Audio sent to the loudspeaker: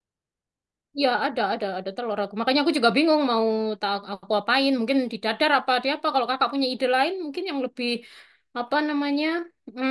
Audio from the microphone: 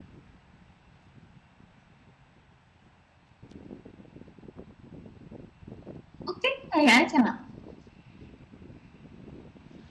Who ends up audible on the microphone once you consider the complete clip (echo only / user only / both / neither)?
user only